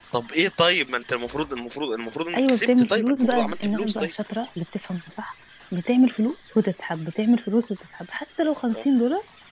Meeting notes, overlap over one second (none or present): present